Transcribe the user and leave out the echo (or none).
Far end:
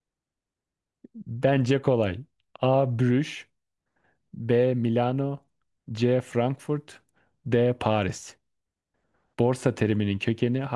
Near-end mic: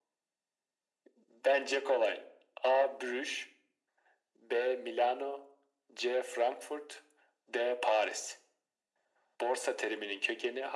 none